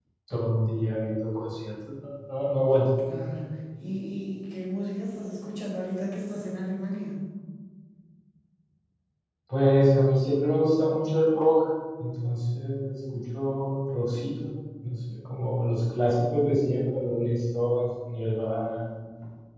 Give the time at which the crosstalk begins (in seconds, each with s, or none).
none